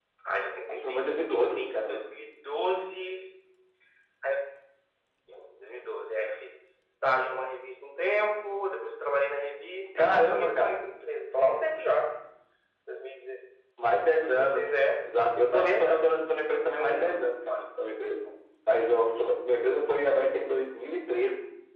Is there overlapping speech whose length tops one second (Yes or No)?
Yes